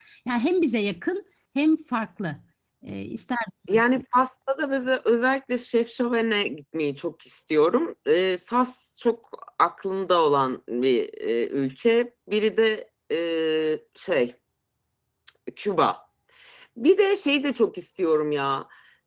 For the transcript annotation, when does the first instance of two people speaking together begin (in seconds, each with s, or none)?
none